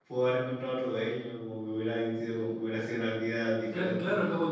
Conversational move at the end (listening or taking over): taking over